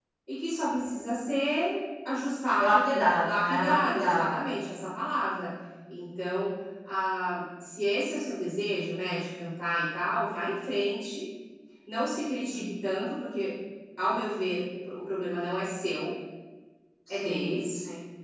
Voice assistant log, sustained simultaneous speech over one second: present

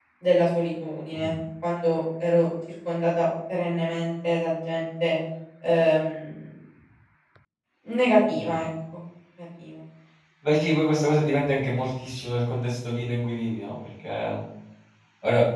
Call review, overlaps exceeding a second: none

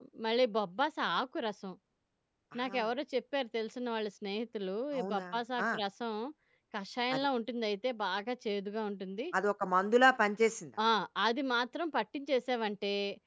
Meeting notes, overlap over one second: none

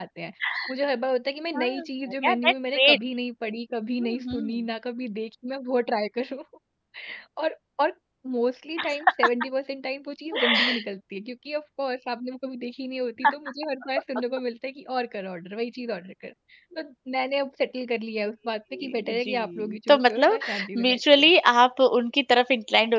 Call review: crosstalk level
present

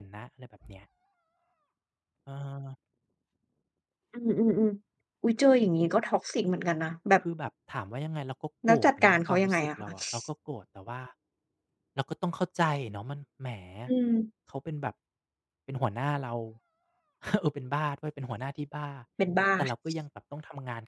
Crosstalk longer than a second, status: present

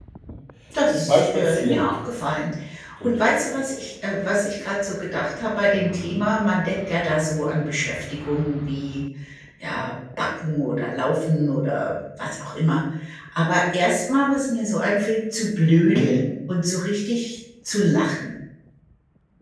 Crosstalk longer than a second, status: present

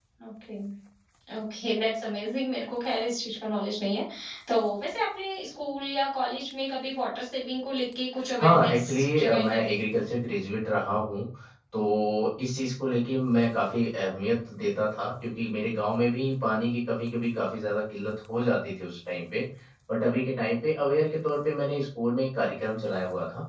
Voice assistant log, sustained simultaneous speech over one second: present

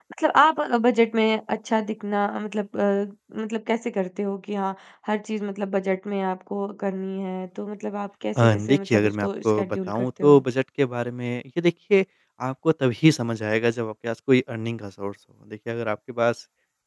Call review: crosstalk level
present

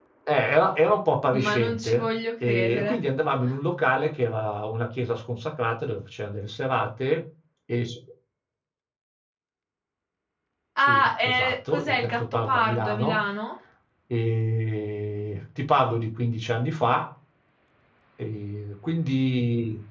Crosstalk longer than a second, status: present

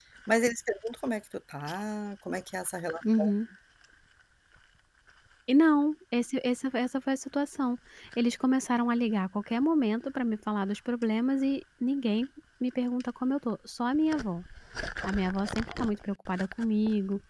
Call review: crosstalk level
none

